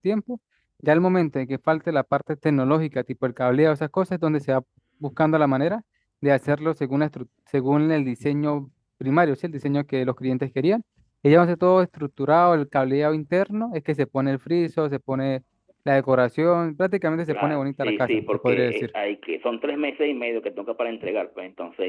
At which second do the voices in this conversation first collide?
17 s

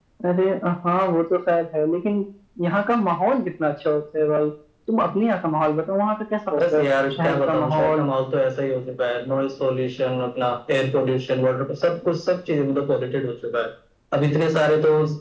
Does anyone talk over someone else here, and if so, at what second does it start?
7 s

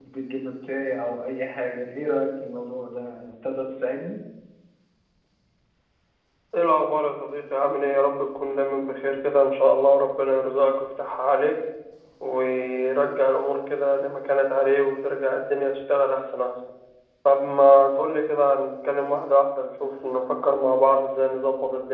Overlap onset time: none

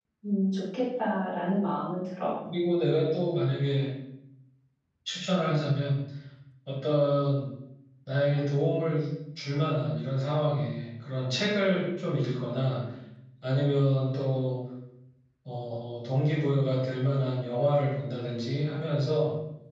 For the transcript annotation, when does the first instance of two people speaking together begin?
none

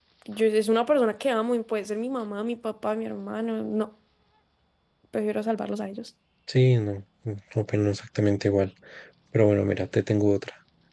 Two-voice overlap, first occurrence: none

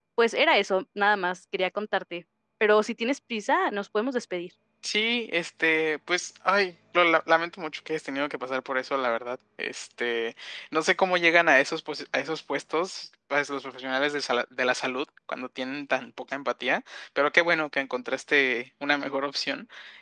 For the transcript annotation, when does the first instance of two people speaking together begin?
none

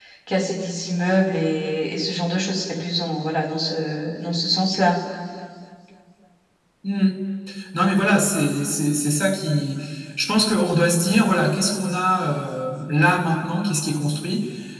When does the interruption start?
none

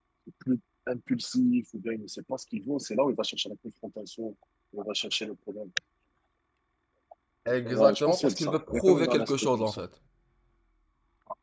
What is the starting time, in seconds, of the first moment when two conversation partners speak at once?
8 s

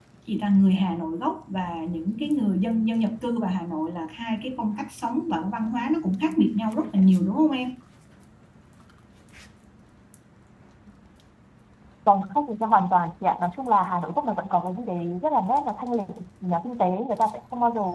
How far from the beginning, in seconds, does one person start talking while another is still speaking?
none

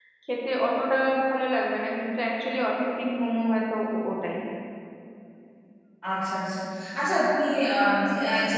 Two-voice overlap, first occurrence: none

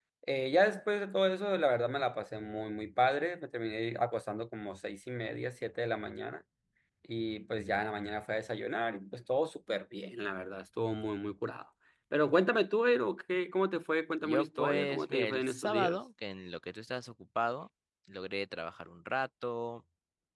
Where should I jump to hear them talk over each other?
14 s

